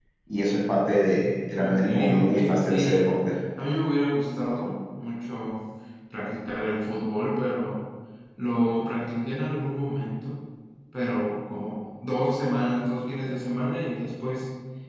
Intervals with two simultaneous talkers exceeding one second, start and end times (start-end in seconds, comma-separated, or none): 1.6-3.1